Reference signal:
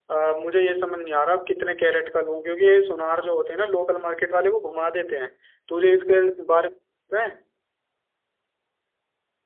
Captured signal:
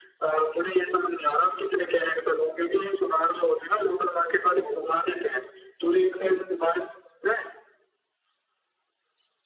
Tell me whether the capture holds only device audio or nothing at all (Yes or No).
Yes